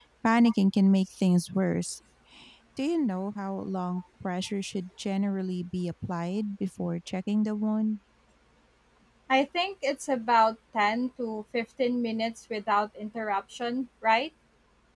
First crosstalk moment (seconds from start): none

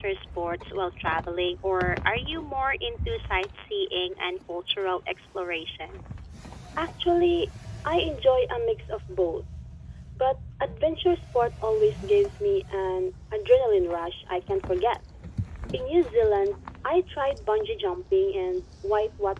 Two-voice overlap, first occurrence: none

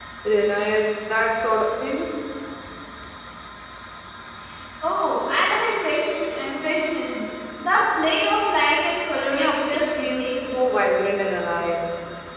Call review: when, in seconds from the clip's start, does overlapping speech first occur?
9.3 s

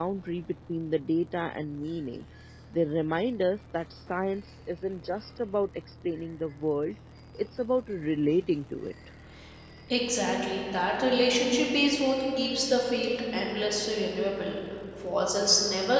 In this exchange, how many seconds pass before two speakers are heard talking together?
none

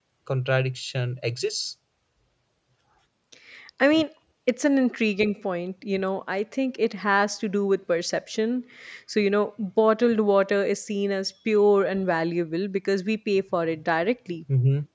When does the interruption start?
none

